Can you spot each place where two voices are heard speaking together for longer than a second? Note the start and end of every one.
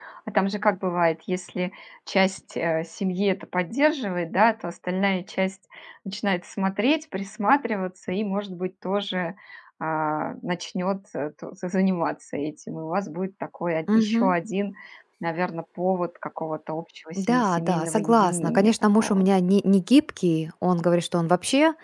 17.1-19.3

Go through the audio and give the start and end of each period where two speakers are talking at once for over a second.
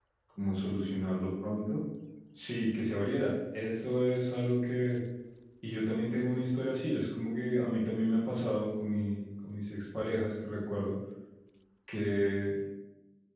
none

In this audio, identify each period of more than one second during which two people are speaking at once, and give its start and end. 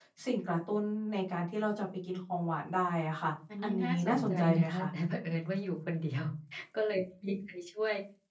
3.6-4.8

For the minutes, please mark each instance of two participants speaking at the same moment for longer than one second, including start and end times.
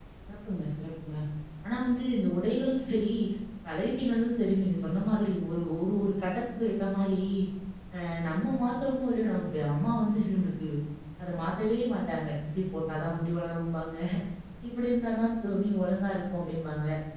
none

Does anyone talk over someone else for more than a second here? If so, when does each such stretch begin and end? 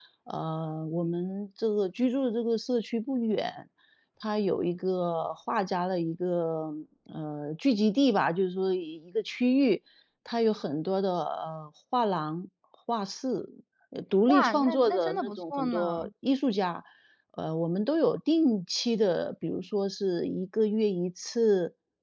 14.3-16.0

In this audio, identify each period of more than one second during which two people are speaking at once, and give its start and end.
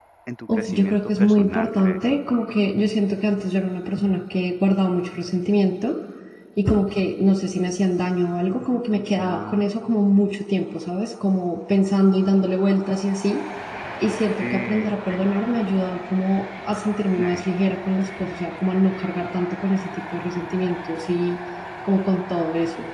0.5-2.0

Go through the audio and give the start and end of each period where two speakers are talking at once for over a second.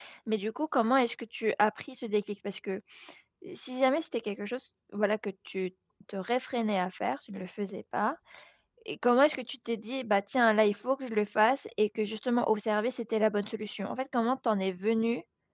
none

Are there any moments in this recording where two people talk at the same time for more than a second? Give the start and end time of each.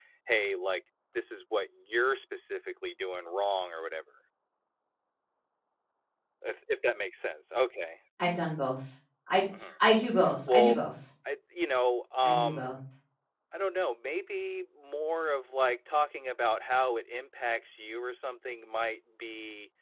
none

